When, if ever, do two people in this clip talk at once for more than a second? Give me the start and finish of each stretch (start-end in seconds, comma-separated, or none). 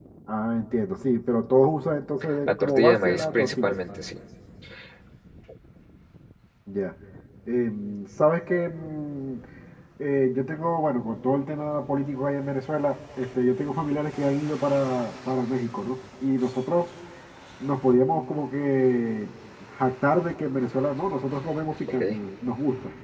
2.5-3.8